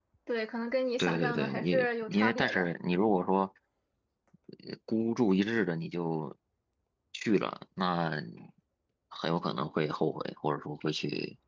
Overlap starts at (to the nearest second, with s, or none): 1 s